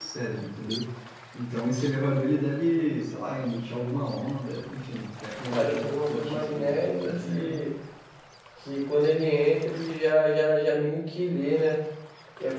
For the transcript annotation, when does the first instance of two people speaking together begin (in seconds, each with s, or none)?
5.5 s